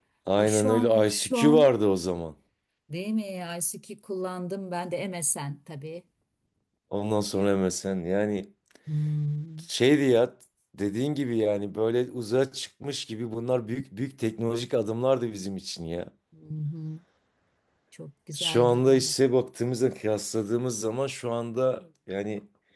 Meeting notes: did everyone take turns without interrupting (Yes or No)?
No